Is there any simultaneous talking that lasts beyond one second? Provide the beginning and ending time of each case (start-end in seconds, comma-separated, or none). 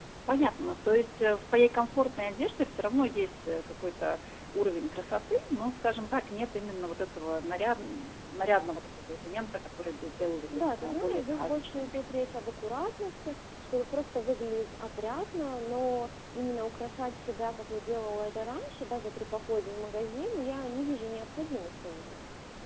10.5-12.0